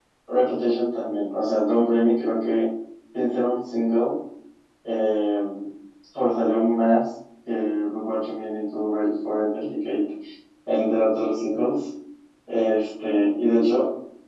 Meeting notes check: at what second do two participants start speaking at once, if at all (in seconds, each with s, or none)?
none